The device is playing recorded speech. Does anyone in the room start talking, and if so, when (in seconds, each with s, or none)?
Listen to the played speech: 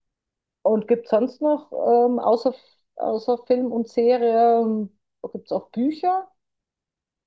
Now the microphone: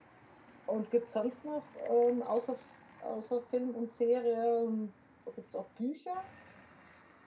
none